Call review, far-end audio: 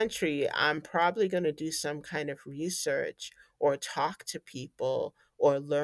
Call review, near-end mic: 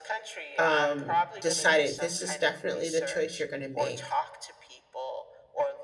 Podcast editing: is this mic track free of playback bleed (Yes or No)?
No